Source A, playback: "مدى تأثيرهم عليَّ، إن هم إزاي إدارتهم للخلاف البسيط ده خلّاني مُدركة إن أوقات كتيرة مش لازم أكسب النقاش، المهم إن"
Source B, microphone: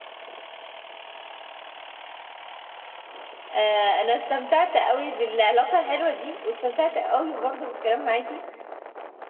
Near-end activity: present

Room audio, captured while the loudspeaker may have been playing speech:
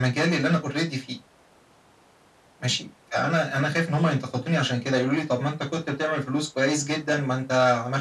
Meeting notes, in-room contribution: none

